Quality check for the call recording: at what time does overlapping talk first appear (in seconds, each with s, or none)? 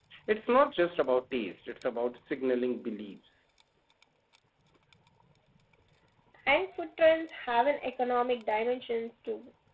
none